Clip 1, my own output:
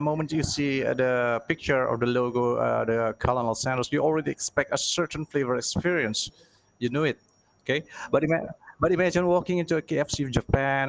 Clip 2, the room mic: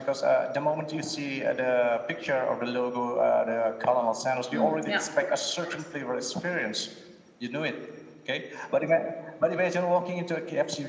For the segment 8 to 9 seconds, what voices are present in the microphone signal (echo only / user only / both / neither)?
echo only